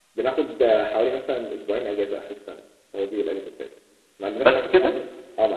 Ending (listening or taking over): listening